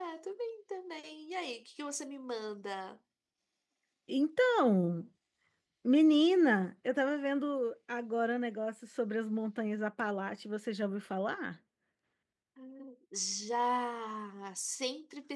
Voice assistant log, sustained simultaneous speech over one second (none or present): none